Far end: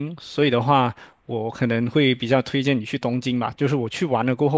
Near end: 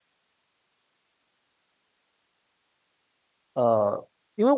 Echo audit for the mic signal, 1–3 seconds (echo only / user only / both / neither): neither